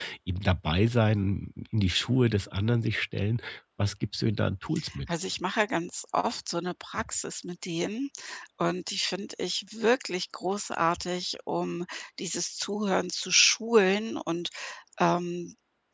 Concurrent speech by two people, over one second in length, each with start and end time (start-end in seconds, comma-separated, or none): none